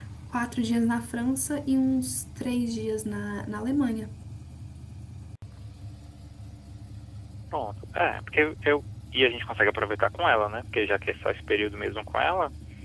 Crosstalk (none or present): none